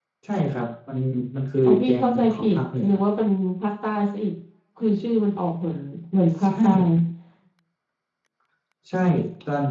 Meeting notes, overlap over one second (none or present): present